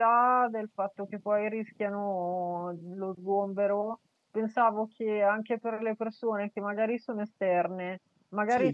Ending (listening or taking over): listening